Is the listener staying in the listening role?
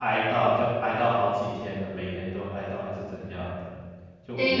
No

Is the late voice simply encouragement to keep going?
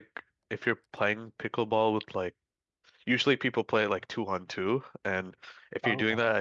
Yes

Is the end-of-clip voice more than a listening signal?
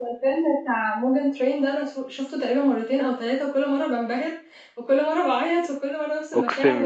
Yes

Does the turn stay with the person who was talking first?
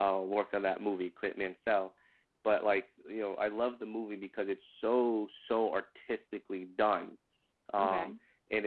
Yes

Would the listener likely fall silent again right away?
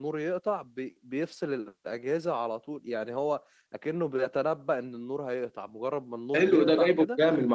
No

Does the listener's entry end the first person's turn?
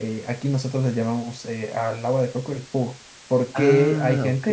No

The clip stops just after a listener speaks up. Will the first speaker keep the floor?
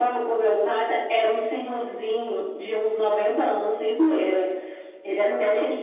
Yes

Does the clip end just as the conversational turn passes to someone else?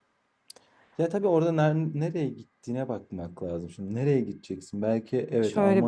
Yes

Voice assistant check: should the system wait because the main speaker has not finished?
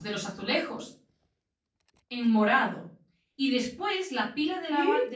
Yes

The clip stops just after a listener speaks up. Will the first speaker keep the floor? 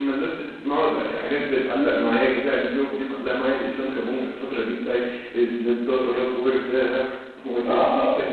No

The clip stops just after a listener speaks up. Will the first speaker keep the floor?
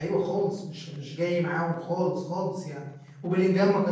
Yes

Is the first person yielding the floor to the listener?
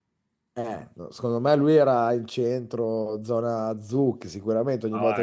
Yes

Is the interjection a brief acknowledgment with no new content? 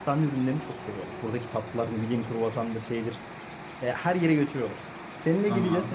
Yes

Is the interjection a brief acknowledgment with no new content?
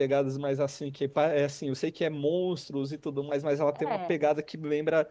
Yes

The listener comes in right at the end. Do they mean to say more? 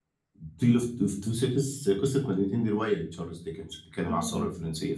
No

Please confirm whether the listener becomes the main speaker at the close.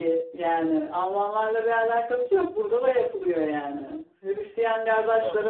No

